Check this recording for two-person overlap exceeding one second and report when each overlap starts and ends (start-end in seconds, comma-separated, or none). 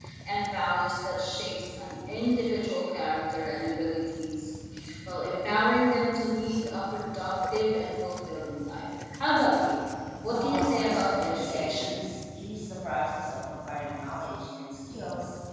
10.3-12.0